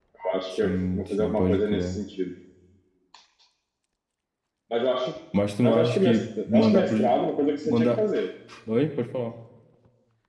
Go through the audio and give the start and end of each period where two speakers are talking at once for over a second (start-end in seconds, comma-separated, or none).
0.5-2.0, 5.6-7.0